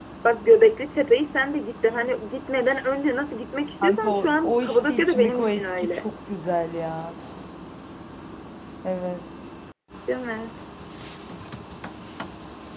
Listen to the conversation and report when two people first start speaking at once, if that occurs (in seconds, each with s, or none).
3.8 s